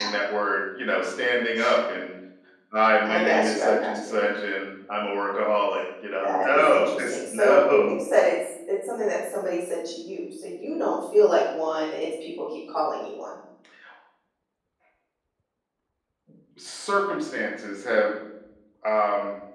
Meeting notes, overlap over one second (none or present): present